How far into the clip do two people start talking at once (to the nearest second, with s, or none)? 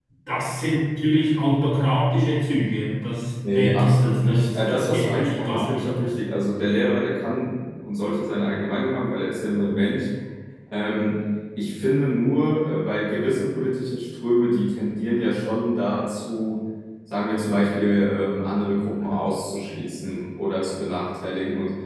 3 s